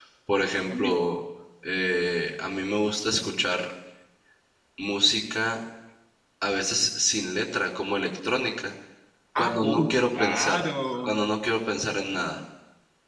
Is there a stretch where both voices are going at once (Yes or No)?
Yes